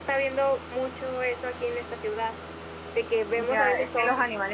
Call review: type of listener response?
taking over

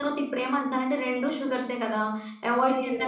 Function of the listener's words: taking over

